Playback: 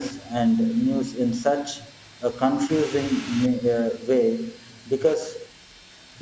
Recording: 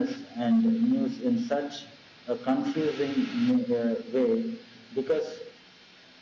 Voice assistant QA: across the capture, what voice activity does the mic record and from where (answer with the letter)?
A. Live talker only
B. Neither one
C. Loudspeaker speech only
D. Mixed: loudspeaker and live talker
C